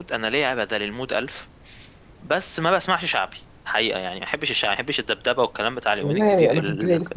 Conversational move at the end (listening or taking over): taking over